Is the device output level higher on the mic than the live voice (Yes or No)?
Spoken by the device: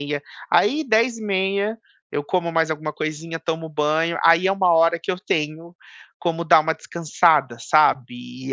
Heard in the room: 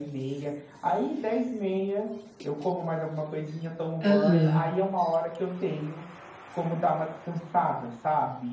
No